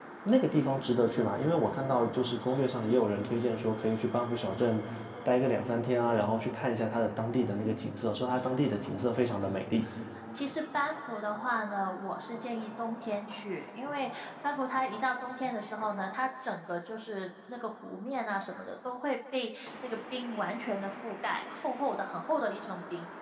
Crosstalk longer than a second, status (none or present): none